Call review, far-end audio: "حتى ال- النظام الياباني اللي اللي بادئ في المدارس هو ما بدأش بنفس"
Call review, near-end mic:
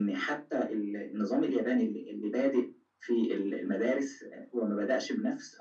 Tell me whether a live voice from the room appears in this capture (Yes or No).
No